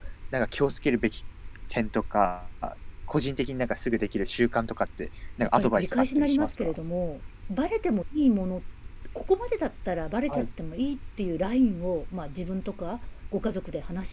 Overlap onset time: 5.4 s

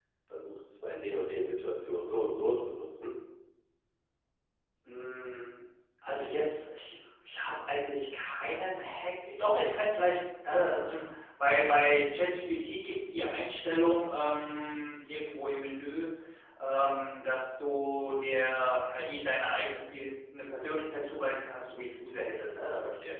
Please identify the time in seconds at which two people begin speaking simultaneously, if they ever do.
none

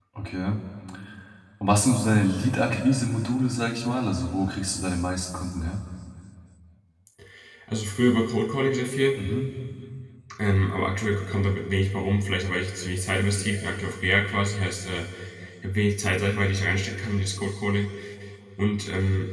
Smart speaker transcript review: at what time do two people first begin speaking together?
none

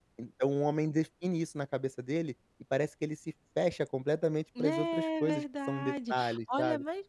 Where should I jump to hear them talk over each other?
4.6 s

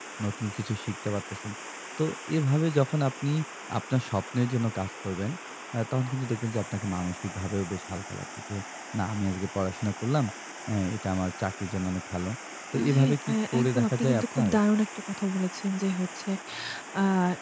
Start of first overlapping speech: 12.7 s

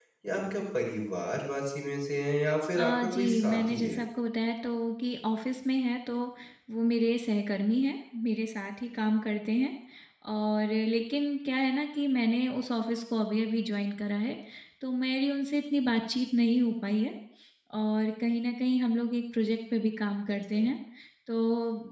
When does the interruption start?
2.8 s

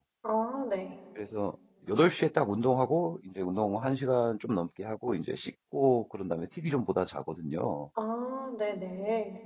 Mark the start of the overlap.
none

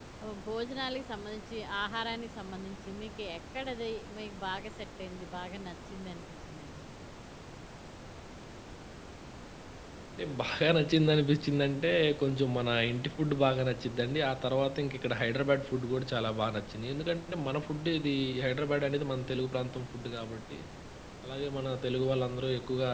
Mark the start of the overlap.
none

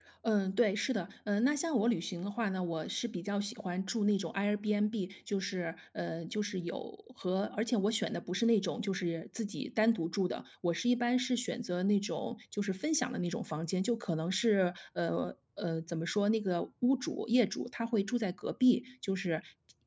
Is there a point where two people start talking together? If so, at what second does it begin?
none

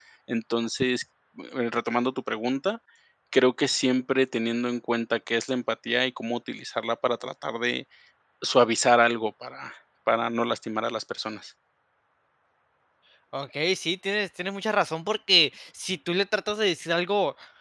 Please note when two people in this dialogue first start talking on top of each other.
none

